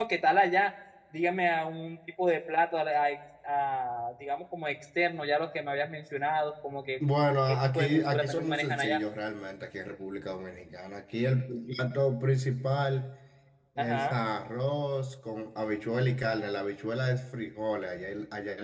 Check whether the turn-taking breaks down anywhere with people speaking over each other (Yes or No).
Yes